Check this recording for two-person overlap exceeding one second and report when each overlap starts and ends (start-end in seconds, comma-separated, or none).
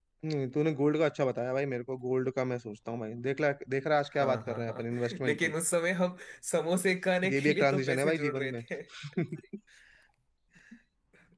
4.2-5.5, 7.3-8.6